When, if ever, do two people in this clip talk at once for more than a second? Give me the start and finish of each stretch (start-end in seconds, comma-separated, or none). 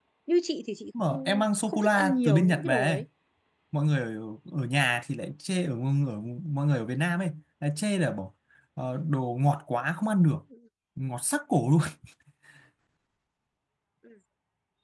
1.0-3.0